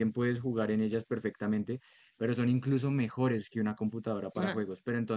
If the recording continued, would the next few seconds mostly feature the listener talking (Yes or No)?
No